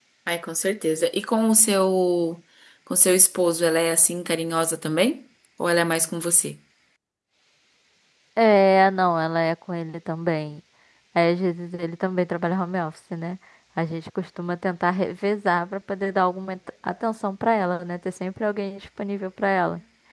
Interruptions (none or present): none